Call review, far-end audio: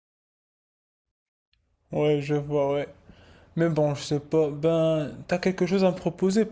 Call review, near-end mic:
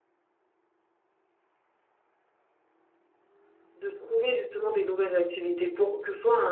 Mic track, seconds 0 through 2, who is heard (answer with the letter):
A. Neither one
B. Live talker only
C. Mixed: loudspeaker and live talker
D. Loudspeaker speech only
A